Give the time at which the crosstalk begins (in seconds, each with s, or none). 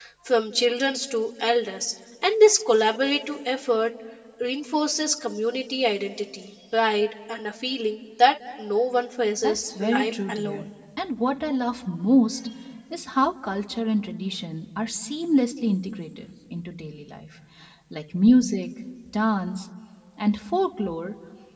9.4 s